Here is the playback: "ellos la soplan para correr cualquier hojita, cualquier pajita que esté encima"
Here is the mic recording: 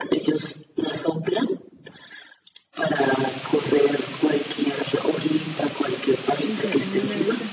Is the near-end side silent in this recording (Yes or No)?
No